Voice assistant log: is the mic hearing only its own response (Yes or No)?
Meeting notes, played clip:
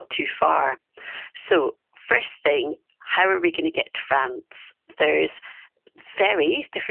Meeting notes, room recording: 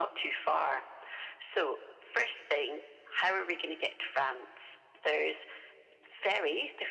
Yes